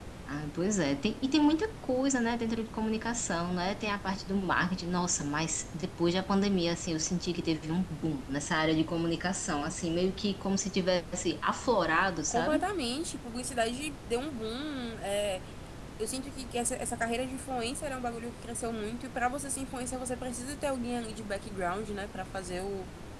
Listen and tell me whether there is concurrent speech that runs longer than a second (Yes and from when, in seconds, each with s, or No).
No